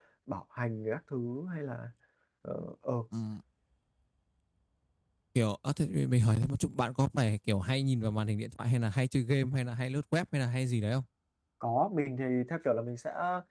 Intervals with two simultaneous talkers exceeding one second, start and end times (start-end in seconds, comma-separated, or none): none